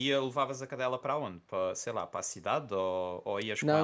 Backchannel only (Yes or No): No